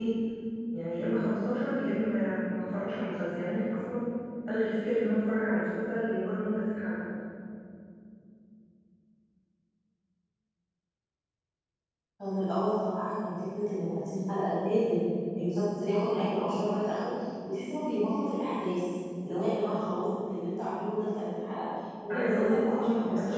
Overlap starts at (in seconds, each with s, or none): 22.1 s